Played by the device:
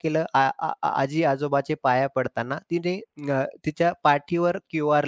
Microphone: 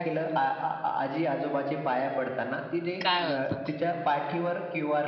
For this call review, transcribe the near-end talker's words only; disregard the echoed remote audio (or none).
काय बोलता?